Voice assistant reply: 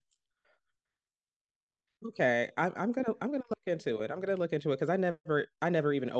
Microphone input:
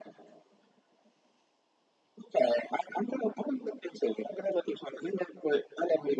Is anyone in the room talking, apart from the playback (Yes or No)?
No